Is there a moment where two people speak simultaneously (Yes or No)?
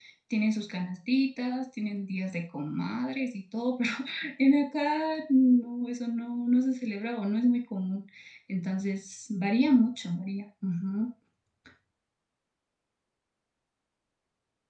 No